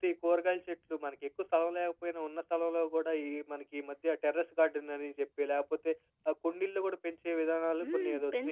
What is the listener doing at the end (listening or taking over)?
taking over